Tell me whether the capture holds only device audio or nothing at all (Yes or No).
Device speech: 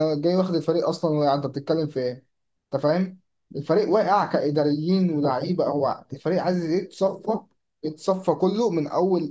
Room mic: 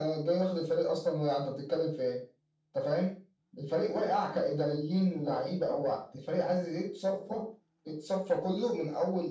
Yes